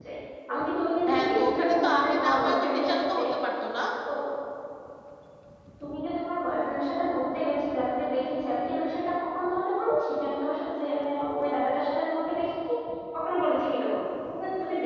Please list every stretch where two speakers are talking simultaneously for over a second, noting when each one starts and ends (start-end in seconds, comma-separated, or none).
1.1-3.2